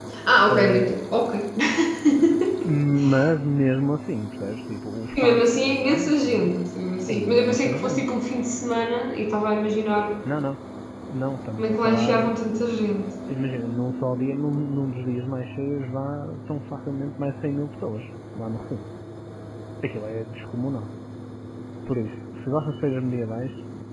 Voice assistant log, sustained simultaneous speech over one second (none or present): present